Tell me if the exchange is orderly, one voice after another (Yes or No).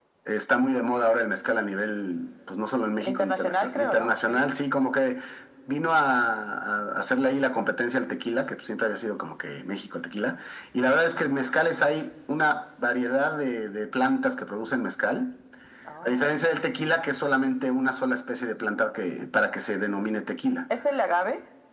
No